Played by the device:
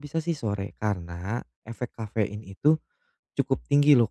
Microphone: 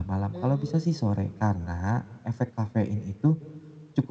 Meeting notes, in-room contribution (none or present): present